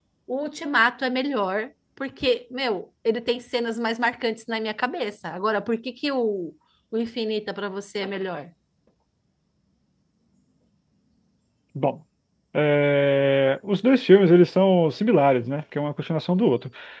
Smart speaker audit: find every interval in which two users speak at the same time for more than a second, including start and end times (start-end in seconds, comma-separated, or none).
none